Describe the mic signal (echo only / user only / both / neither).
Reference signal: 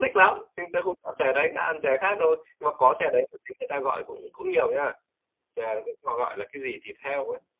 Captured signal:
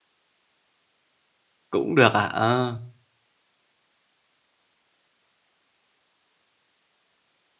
user only